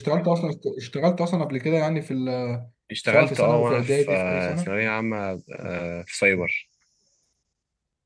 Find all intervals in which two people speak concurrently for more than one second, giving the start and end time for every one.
3.1-4.7

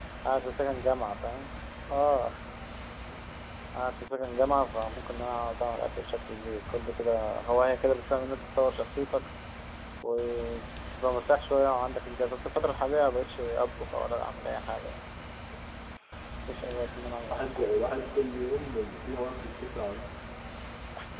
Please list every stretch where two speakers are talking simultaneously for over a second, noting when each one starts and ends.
none

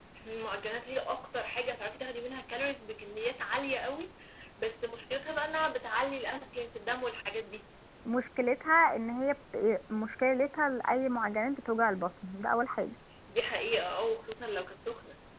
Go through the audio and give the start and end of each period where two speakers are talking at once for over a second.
none

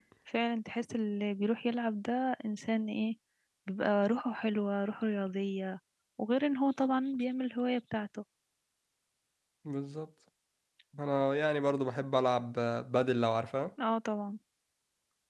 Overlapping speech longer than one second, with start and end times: none

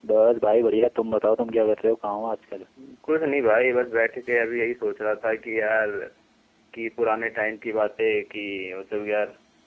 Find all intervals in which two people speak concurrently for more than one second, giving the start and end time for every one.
none

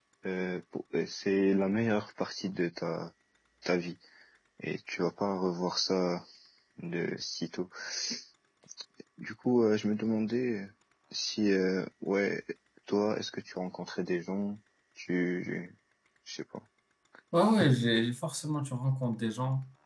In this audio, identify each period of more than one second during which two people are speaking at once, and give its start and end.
none

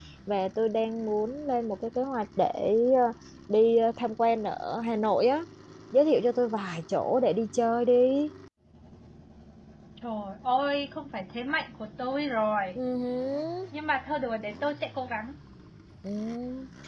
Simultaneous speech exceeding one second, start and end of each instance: none

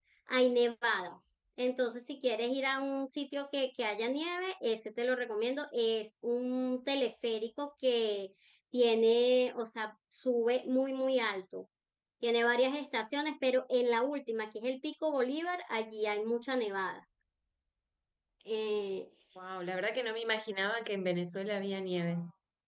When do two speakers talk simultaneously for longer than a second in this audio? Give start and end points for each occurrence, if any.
none

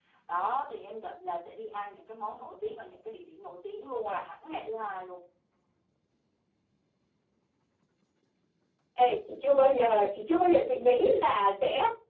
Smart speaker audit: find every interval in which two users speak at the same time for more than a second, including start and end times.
none

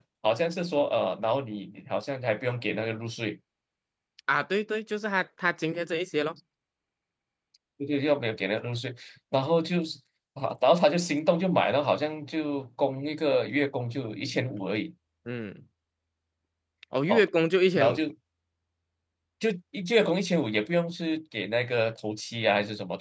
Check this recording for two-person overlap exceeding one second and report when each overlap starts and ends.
none

